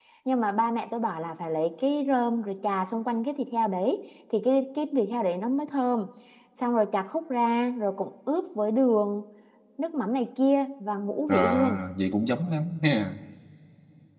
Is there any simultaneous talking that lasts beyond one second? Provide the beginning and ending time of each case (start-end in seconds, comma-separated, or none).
none